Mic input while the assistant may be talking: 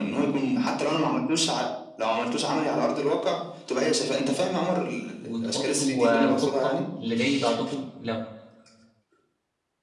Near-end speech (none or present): present